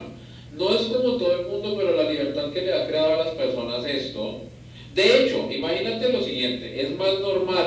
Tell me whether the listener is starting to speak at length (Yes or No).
No